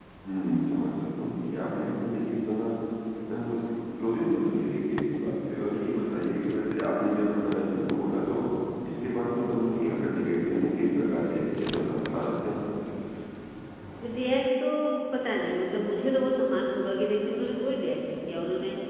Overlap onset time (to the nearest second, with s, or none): none